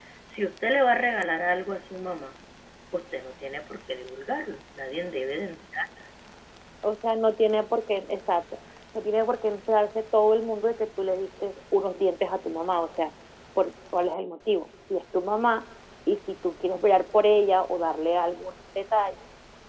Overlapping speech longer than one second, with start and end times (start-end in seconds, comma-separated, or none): none